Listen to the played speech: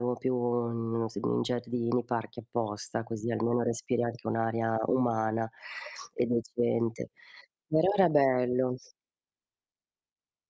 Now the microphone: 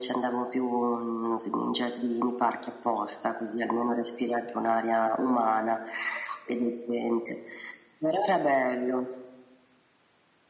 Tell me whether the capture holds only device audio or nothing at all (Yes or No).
Yes